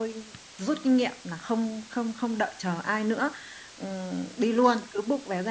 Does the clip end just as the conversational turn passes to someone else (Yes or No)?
No